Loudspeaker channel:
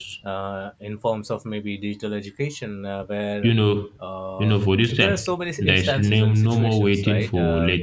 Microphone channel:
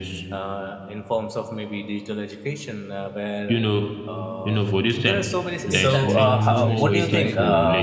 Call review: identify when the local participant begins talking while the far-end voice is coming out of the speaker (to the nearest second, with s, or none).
6 s